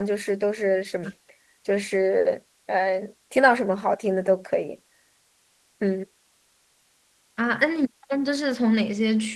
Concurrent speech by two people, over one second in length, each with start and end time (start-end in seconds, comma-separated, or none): none